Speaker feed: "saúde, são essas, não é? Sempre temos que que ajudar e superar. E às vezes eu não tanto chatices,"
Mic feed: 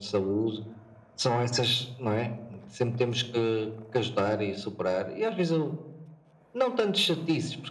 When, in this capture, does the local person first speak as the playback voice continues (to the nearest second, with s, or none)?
none